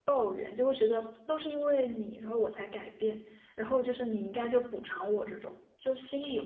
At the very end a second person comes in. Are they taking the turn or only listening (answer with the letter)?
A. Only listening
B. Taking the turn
B